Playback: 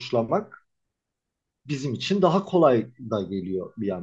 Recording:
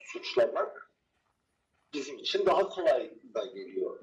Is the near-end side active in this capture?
No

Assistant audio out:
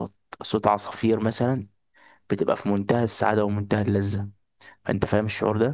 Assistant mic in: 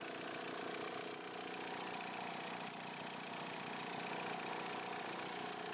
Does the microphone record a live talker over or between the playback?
No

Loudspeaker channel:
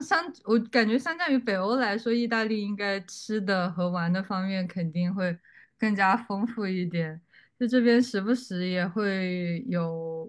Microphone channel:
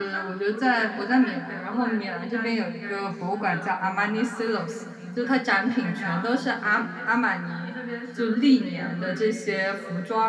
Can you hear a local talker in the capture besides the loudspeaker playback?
Yes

